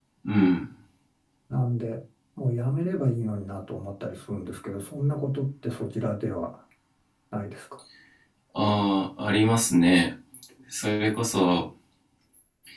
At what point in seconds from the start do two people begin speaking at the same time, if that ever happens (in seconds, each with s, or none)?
none